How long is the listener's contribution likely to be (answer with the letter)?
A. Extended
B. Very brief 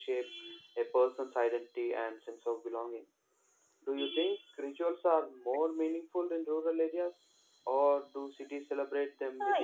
A